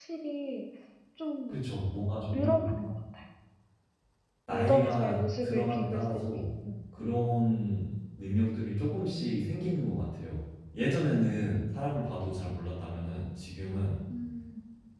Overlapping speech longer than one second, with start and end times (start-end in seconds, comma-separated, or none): 4.5-6.0